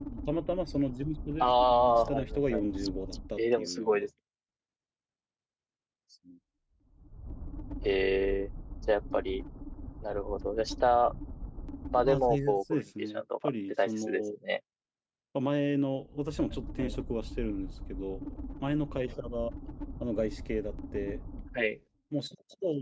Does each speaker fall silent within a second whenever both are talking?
No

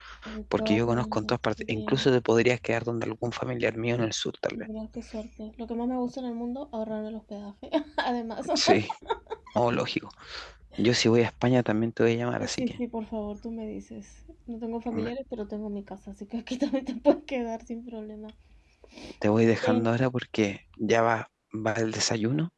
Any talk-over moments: Yes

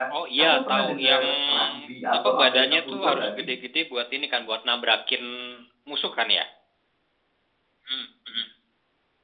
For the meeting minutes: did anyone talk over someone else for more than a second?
Yes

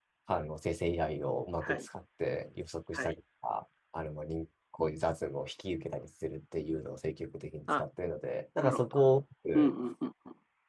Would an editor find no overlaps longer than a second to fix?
Yes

